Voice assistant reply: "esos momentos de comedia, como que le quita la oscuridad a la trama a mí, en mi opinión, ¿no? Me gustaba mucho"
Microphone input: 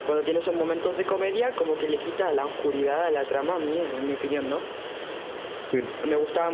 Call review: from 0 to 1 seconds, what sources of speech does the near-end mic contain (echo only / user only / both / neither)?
echo only